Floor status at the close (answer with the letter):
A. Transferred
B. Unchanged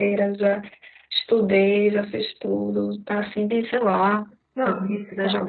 A